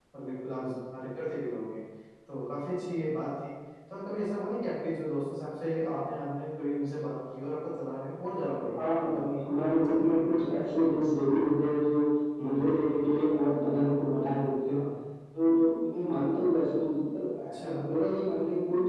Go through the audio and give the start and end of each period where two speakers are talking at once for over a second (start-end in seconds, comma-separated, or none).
8.7-10.9